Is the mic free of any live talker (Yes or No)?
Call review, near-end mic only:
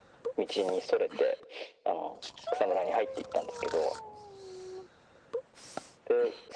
Yes